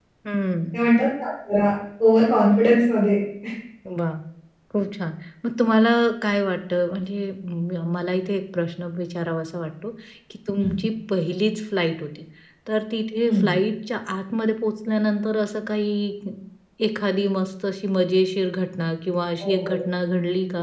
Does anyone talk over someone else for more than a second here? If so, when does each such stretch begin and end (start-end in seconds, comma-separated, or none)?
none